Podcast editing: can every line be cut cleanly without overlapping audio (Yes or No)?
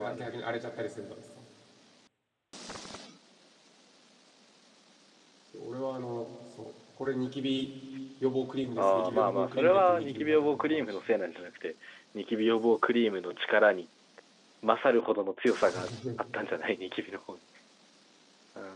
No